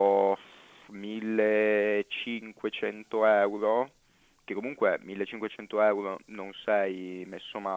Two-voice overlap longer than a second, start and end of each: none

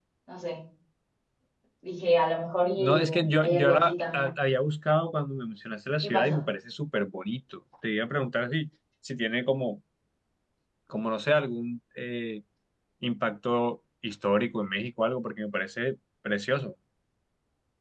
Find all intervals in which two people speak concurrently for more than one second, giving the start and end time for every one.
2.7-4.3

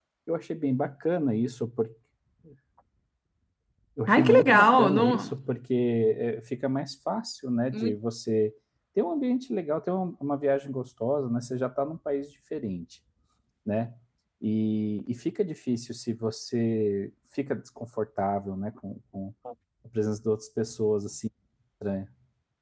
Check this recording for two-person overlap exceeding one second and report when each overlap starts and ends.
4.1-5.3

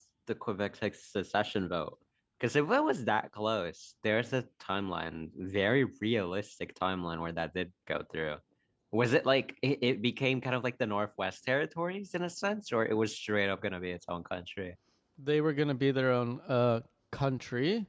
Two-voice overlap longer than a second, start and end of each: none

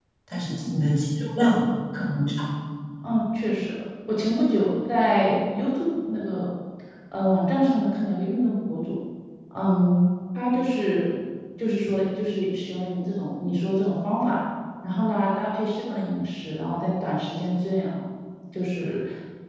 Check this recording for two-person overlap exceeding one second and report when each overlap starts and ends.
none

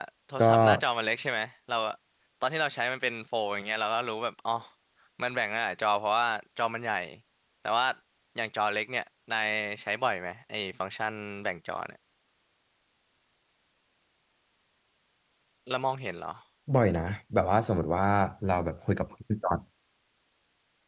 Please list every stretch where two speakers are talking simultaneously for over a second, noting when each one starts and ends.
none

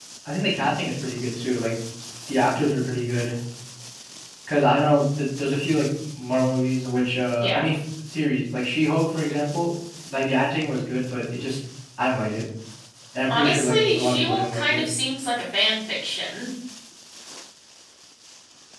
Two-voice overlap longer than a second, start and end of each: 13.3-14.8

